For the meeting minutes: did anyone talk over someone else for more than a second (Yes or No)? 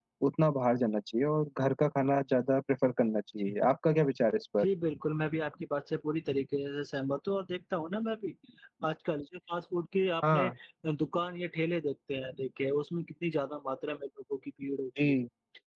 No